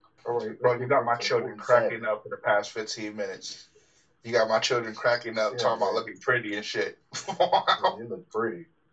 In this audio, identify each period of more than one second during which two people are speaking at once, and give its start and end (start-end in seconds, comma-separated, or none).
0.6-1.9